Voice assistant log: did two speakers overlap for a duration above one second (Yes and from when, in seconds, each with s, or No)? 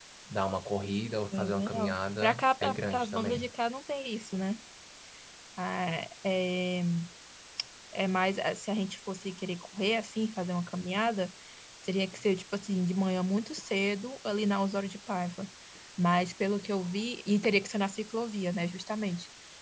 Yes, from 1.3 s